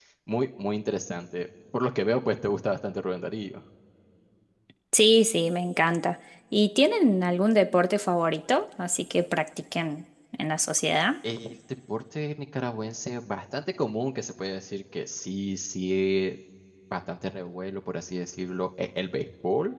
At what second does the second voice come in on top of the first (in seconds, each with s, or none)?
none